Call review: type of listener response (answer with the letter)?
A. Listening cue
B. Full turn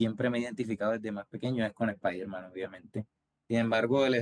A